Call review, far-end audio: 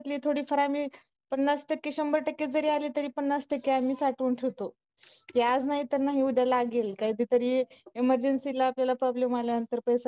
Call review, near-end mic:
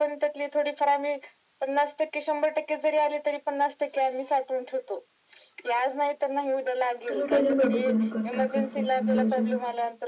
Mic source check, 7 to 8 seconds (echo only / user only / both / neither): both